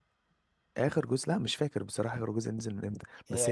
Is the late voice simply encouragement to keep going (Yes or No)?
Yes